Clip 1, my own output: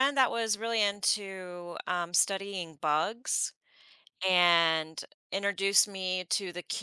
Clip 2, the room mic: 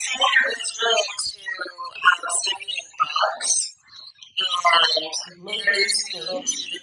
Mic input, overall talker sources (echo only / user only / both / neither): both